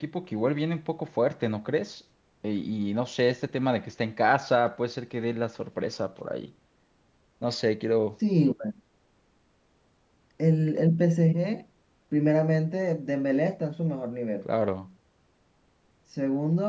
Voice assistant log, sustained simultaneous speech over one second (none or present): none